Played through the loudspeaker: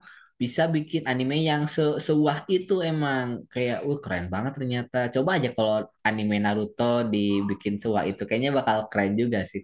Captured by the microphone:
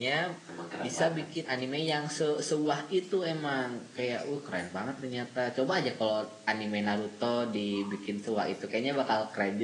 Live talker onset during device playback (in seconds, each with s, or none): 0.5 s